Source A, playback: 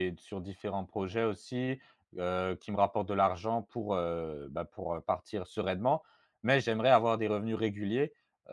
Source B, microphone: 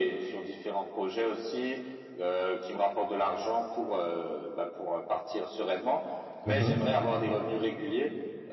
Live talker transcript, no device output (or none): Mmh mh.